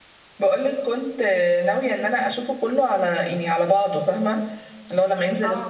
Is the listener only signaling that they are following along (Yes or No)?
Yes